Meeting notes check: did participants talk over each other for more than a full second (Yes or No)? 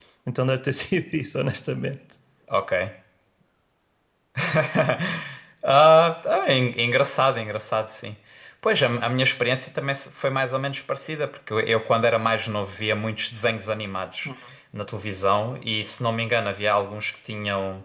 No